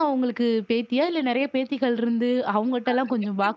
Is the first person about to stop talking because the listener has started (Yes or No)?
No